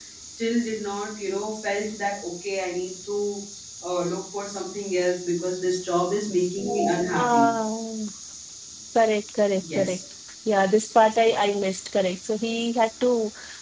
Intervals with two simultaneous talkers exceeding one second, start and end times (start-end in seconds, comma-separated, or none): none